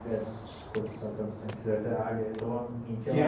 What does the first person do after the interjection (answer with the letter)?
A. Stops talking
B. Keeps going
A